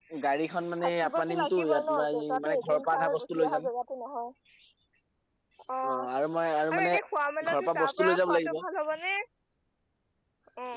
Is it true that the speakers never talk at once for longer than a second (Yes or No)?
No